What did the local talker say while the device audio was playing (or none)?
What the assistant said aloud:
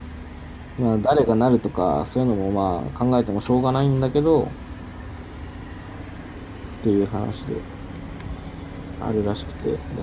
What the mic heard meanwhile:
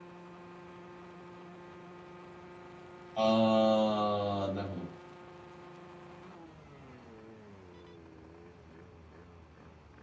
あーなるほど。